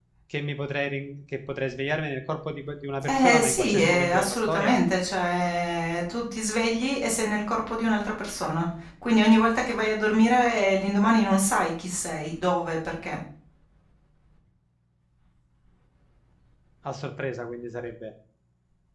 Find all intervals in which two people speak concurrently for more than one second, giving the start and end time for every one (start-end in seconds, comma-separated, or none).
3.0-4.8